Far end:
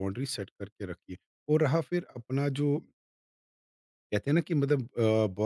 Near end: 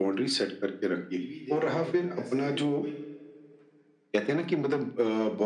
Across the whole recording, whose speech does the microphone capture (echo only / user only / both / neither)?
both